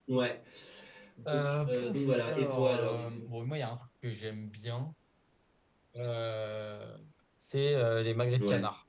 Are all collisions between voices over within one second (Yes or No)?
No